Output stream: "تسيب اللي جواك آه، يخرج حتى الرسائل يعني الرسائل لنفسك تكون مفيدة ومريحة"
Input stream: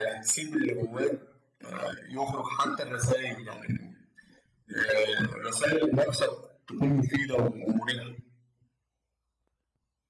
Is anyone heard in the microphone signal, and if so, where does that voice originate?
echo only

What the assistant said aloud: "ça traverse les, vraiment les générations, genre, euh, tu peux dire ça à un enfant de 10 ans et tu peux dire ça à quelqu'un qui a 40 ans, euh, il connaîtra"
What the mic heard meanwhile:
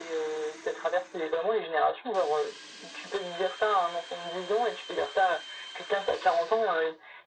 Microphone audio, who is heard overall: echo only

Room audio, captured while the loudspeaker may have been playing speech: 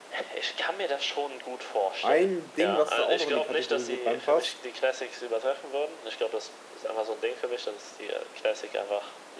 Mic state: both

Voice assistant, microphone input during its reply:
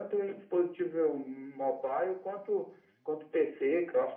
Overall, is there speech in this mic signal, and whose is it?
echo only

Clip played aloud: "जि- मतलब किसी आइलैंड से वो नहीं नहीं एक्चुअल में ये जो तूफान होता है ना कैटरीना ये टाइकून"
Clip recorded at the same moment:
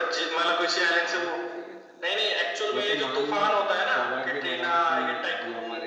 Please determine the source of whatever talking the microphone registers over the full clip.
both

